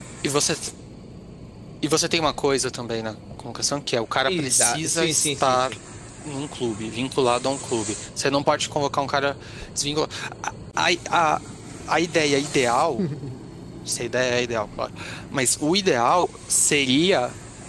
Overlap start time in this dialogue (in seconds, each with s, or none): 4.3 s